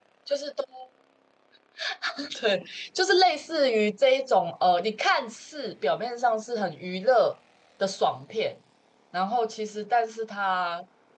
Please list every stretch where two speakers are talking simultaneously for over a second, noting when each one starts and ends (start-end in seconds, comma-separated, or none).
none